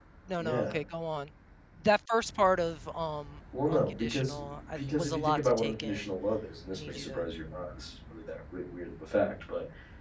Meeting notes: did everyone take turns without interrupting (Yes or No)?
No